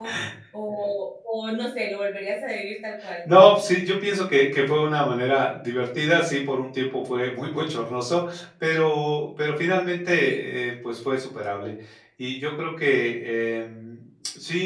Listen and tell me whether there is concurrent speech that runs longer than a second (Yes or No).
No